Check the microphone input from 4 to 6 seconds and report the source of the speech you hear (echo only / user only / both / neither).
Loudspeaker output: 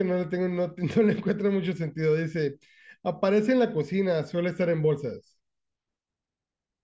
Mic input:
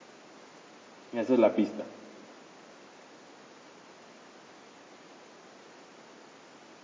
neither